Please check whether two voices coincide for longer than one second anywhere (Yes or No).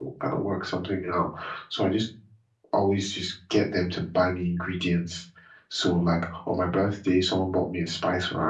No